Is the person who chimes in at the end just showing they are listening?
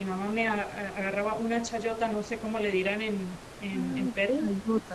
No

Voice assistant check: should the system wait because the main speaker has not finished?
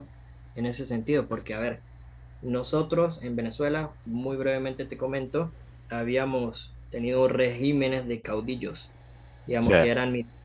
Yes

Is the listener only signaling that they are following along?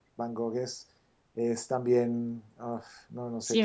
No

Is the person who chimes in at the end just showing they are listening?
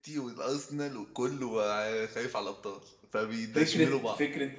No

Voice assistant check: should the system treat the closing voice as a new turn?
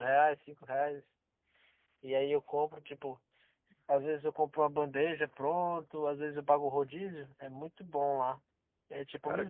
No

